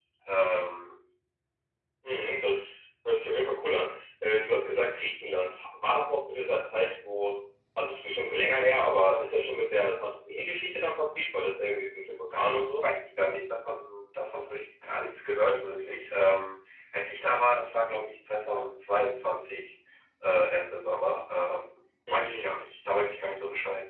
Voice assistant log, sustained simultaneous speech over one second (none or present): none